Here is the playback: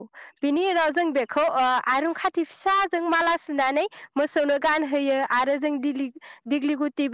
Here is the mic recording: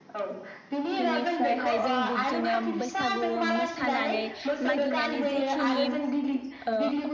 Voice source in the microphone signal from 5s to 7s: both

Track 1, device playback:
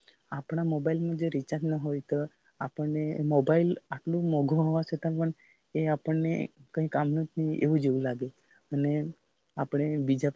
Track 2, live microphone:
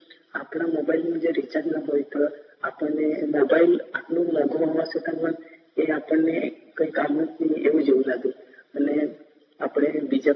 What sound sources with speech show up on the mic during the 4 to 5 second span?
echo only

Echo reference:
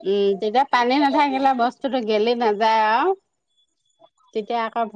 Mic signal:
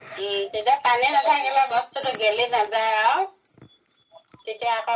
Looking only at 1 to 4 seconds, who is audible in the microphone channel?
echo only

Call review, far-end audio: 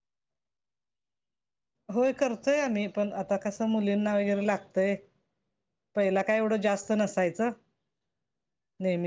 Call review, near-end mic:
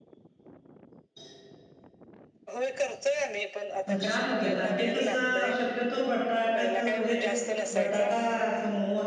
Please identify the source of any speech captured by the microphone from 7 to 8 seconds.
both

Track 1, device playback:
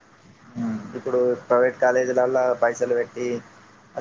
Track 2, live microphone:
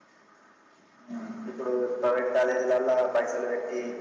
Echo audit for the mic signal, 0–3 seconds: echo only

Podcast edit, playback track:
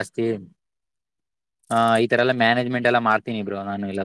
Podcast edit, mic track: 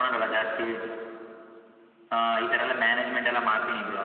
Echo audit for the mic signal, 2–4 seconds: echo only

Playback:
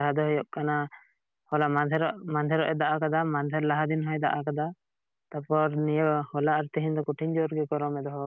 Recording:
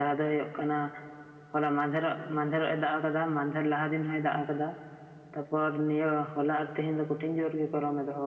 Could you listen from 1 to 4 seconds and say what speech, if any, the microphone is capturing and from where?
echo only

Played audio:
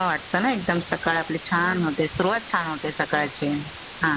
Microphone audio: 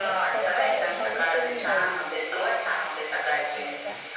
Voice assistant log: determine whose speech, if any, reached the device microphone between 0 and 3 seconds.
both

